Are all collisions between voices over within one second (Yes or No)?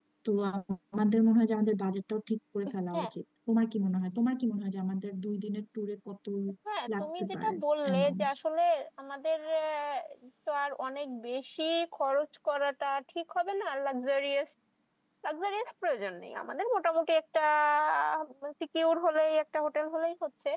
No